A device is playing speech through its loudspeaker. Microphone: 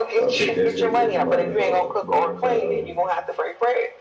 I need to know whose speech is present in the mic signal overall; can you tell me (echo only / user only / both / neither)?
both